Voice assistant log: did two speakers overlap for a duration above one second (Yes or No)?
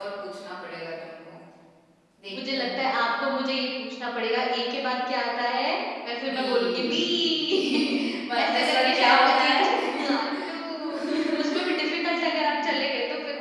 Yes